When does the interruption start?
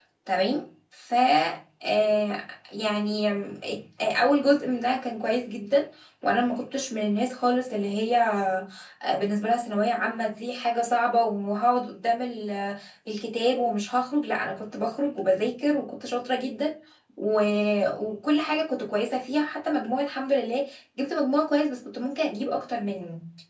none

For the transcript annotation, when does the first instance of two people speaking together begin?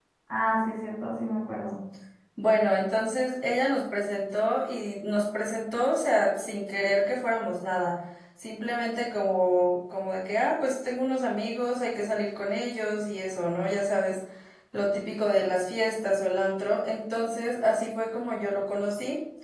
none

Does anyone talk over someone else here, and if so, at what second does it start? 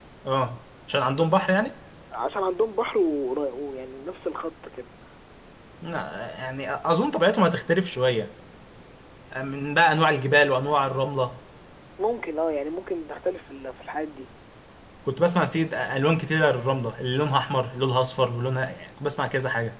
none

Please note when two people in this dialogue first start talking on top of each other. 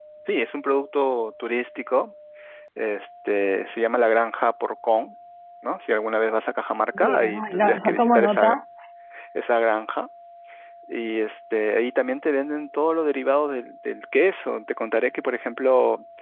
7.0 s

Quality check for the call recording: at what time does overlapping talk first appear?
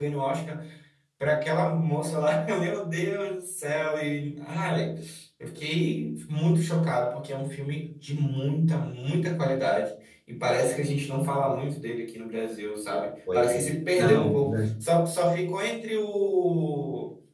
13.3 s

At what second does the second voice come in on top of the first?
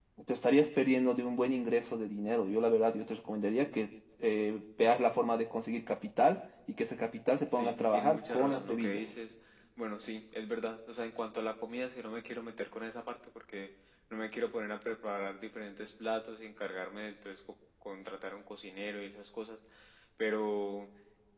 7.5 s

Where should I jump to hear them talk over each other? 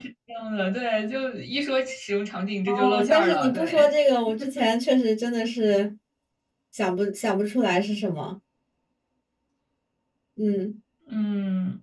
2.7 s

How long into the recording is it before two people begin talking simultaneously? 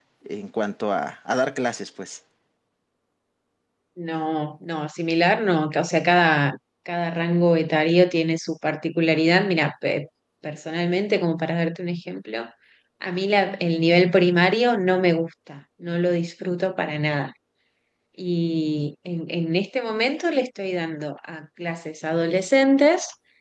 none

